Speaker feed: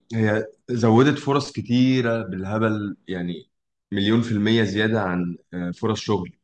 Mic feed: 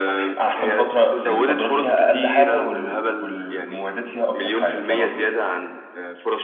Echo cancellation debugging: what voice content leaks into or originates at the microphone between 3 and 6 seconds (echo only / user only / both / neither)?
both